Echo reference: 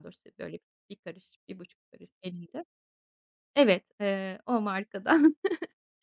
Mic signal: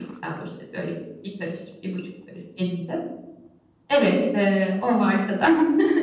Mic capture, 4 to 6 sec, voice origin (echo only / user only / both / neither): echo only